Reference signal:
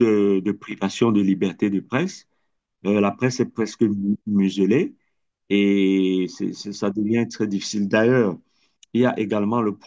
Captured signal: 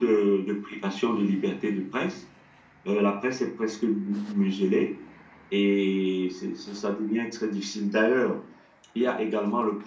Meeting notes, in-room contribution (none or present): none